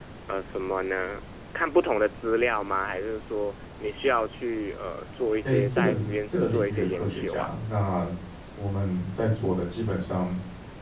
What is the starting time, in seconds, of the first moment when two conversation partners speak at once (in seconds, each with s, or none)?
5.4 s